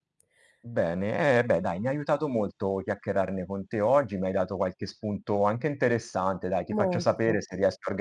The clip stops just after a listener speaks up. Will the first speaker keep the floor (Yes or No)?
Yes